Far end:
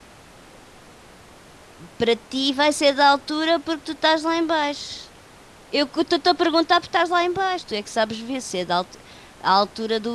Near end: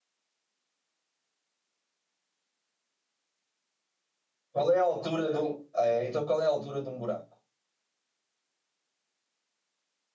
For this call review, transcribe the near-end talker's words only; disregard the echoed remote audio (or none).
Qual é a altura do. É, então, qual é a altura de um buraco?